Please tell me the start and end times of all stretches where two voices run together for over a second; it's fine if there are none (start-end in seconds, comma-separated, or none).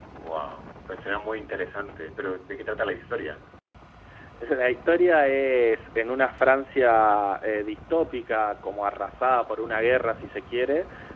none